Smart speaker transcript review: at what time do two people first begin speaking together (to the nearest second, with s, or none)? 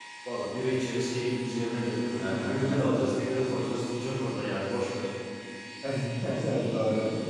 2 s